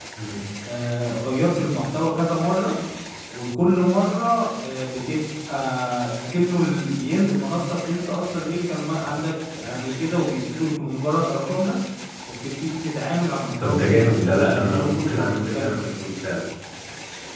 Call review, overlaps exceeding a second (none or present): present